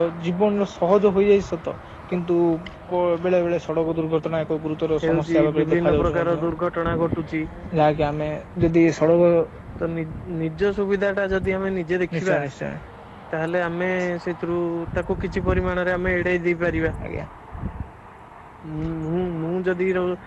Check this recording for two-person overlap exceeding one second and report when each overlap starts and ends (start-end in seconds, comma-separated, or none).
5.0-6.4